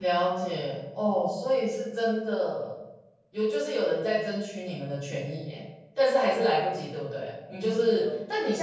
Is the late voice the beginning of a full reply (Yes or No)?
No